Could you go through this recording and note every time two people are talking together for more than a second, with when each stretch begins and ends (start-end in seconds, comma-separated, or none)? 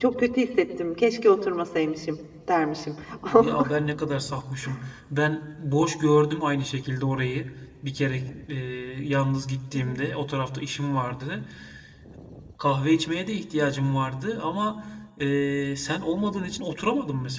none